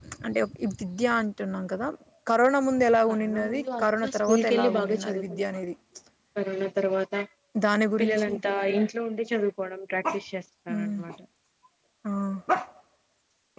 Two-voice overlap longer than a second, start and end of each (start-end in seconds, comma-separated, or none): 3.1-5.6